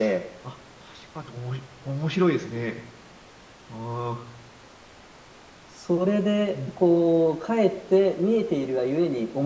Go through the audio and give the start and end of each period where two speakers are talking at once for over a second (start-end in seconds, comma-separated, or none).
none